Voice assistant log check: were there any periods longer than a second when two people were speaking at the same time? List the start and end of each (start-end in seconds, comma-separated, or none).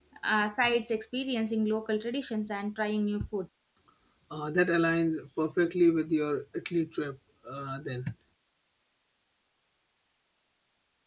none